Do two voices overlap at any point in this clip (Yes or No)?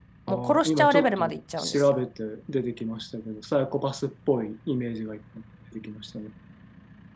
Yes